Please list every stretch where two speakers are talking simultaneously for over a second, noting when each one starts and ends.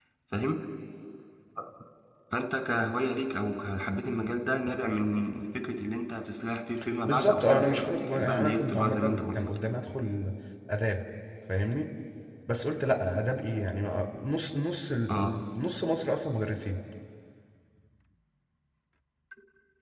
7.0-9.4

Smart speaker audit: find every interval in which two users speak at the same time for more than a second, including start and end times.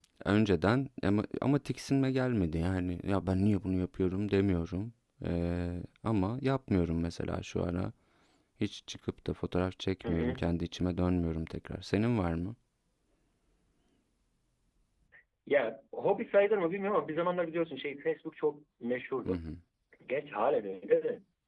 none

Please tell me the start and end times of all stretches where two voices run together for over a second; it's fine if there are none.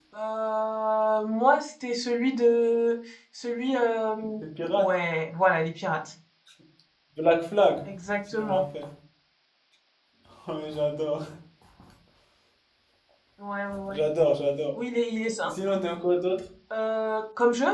none

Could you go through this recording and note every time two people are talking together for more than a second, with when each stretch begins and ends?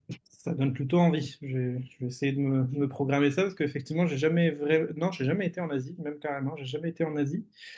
none

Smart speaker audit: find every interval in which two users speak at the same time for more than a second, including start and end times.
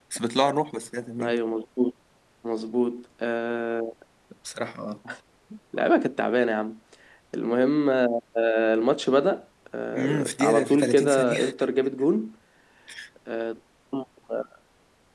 9.9-11.4

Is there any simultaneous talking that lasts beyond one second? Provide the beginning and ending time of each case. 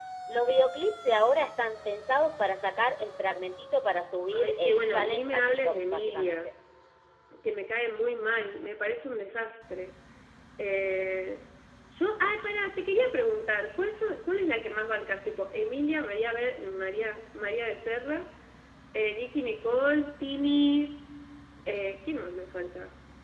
4.3-6.4

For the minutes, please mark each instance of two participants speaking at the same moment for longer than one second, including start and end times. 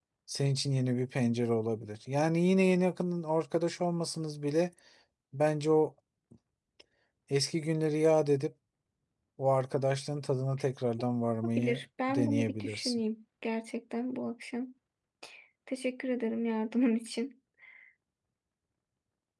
11.6-13.0

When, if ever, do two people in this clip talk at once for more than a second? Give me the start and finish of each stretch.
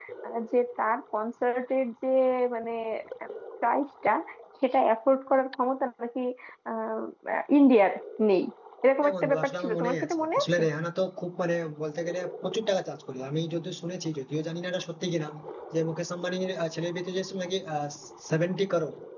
9.0-10.6

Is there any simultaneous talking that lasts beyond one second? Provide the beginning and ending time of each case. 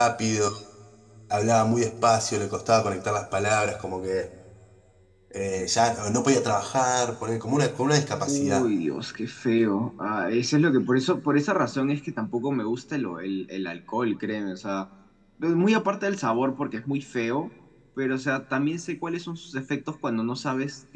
none

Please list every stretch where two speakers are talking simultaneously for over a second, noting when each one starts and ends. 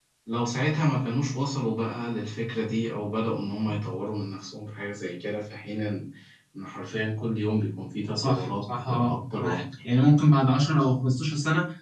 8.2-9.6

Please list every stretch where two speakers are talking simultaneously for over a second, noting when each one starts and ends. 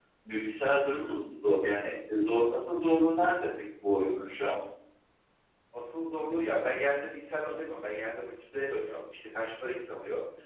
none

